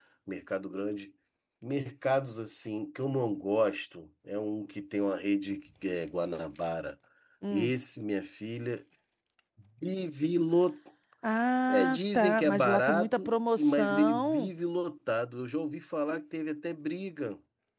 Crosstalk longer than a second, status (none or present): present